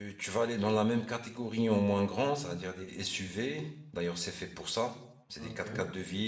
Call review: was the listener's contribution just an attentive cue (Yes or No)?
Yes